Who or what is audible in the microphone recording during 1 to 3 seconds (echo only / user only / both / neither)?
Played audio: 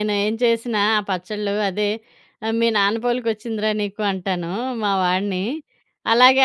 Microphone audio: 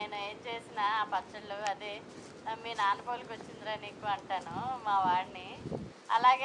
echo only